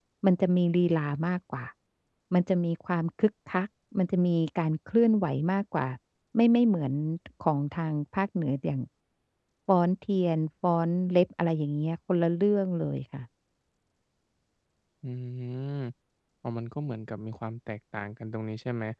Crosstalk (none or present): none